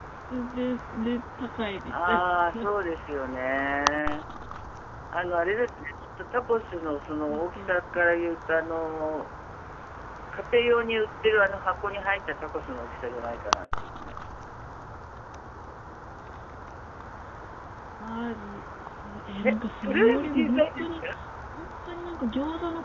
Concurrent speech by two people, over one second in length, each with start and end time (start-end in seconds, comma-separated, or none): 19.4-20.9